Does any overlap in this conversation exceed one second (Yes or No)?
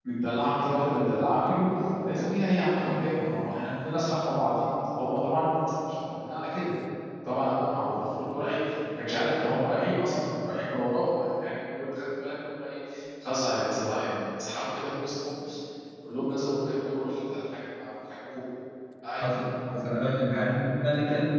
No